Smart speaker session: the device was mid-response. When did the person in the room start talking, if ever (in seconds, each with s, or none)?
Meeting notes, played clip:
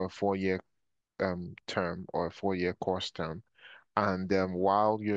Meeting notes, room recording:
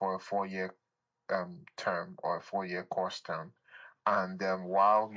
none